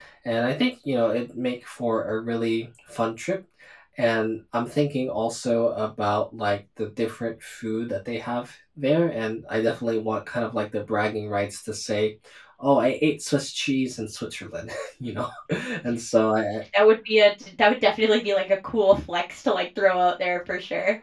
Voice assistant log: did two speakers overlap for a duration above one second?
No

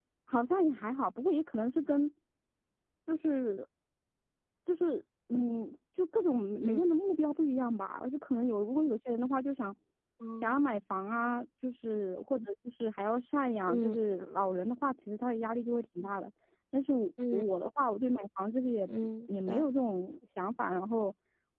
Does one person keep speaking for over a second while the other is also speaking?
No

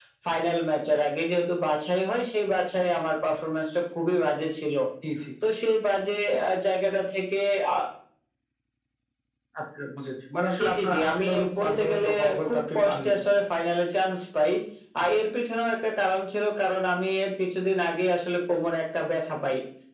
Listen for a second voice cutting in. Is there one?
Yes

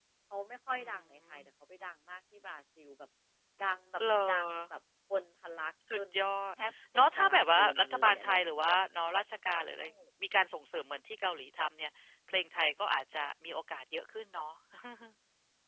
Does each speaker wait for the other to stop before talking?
No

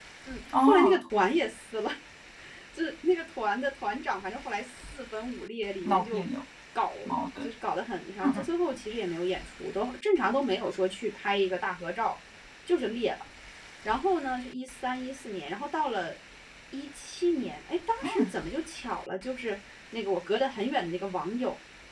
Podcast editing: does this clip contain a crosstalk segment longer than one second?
No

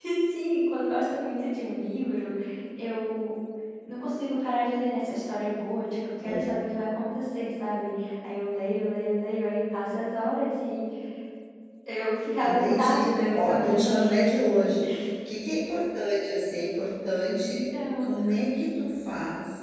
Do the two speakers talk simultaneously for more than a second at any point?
Yes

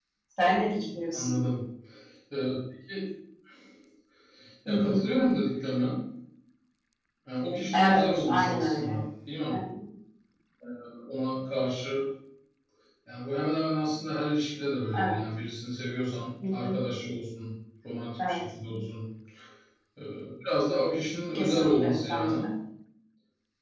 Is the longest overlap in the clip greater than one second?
Yes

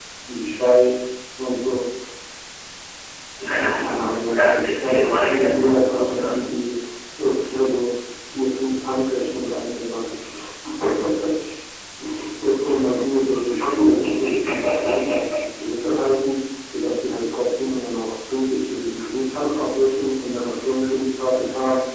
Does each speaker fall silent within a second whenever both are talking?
No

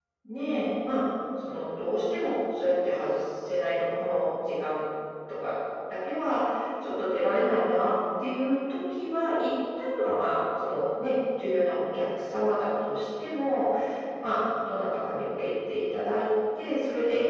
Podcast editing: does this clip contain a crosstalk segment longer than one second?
No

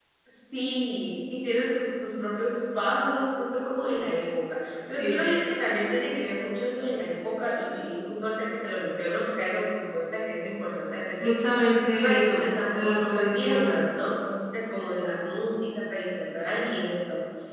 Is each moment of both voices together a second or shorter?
No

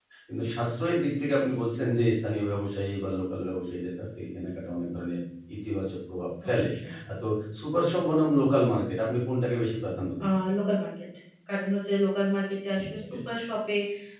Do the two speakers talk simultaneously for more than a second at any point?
No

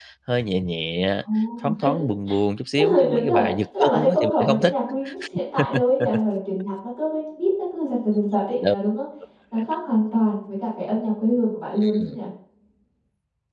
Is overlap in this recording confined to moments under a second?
No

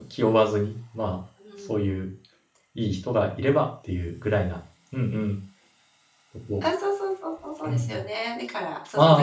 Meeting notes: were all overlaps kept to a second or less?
Yes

